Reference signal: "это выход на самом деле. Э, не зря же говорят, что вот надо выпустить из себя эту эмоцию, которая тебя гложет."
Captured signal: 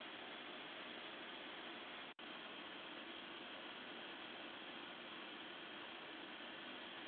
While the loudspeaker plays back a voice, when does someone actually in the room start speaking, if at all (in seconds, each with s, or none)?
none